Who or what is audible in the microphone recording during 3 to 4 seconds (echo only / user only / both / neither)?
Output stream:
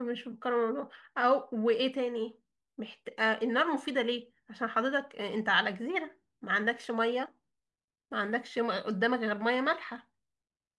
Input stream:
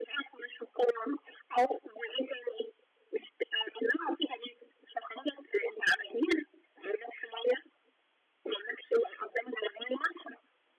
echo only